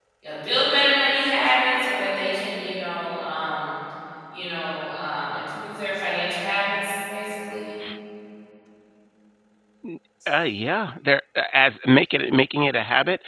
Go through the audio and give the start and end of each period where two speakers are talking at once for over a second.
none

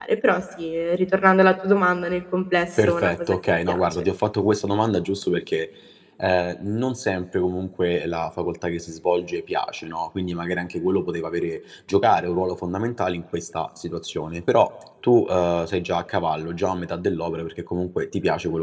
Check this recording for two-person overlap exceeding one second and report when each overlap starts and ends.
2.8-4.0

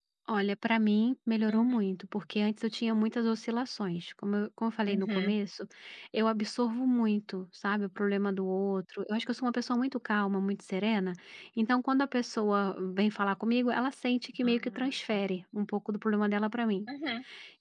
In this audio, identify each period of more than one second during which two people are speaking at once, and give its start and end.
none

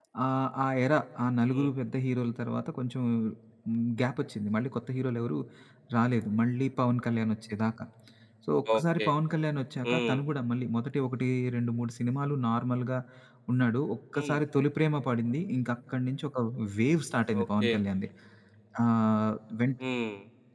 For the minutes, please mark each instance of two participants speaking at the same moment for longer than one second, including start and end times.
none

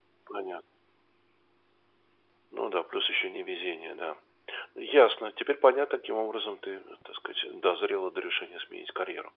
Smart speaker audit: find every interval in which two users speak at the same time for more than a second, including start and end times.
none

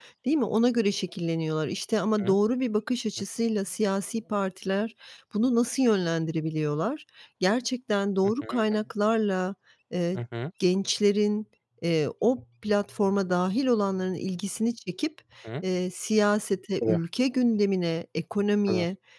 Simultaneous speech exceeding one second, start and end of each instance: none

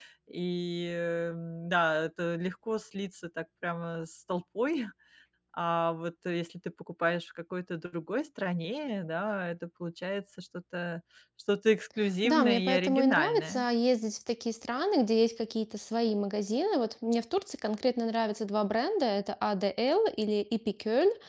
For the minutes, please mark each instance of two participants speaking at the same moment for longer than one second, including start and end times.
12.2-13.6

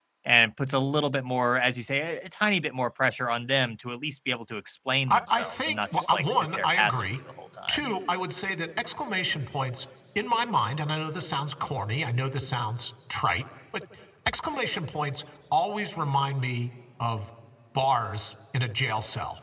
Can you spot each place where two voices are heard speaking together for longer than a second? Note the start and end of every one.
5.1-7.0

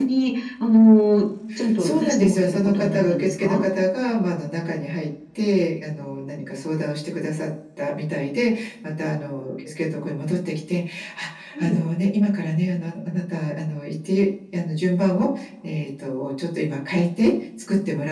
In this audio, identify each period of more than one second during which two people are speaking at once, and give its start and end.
1.8-3.6

